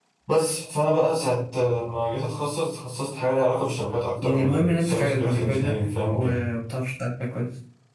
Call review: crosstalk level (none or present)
present